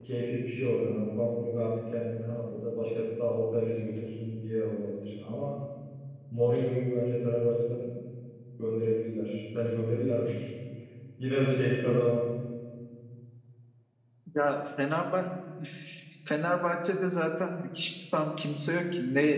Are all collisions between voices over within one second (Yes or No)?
Yes